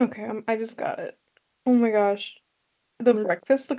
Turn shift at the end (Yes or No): No